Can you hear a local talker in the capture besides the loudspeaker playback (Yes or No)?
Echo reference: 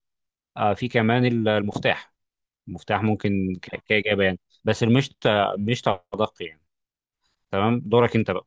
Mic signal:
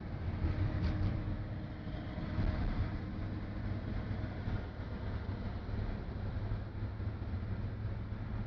No